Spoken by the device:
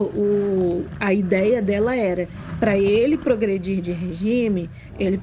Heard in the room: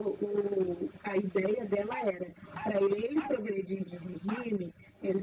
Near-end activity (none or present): none